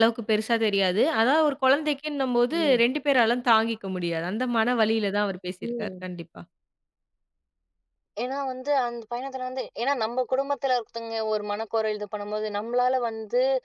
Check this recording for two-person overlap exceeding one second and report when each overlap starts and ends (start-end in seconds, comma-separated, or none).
none